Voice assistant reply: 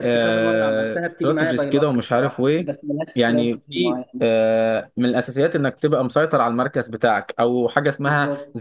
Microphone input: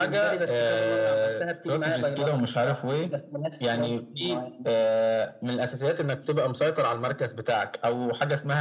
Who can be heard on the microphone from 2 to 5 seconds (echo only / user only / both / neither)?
echo only